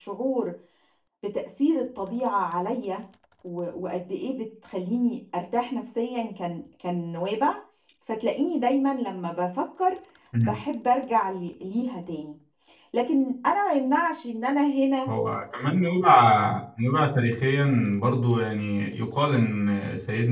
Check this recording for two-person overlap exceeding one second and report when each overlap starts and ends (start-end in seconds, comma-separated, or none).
none